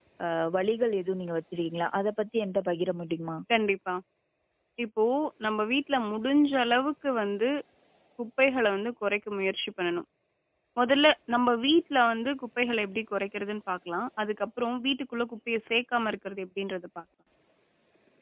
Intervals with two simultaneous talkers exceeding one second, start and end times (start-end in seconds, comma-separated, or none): none